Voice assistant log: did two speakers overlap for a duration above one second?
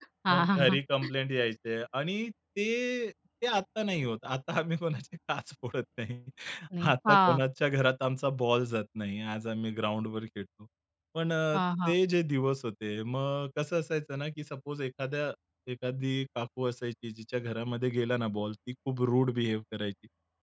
No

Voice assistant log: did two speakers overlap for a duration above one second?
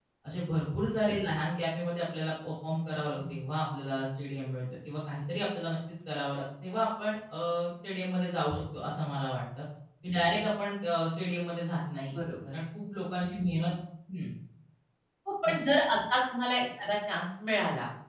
No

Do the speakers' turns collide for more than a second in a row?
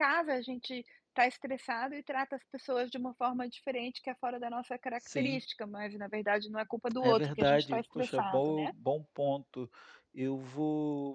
Yes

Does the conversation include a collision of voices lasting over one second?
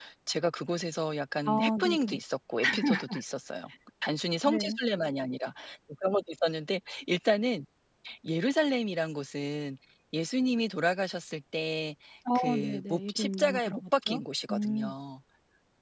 Yes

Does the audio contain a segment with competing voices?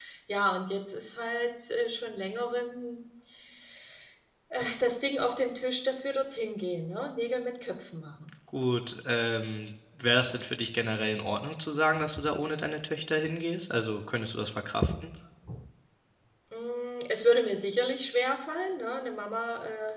No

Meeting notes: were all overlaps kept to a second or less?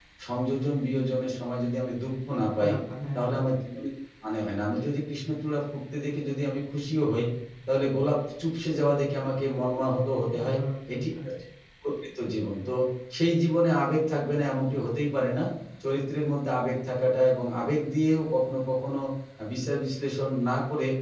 Yes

